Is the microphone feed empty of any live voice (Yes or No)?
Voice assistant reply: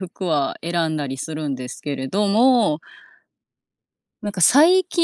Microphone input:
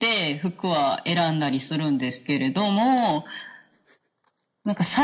Yes